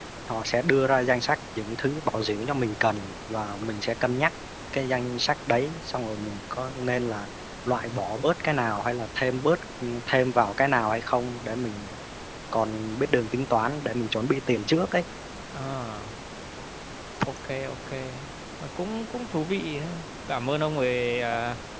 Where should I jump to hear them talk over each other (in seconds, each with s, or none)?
none